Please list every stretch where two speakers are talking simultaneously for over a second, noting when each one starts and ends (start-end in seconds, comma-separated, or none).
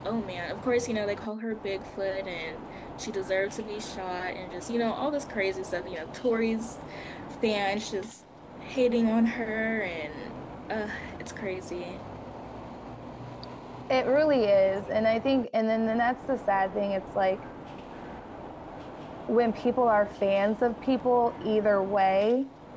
none